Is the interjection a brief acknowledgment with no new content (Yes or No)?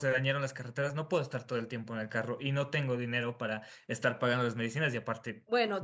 No